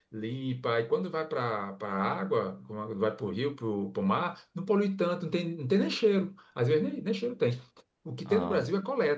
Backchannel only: Yes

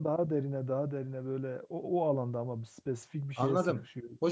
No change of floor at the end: No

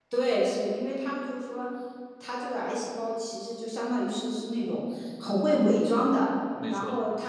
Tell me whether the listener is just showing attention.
Yes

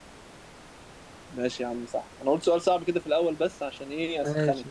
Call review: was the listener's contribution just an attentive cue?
No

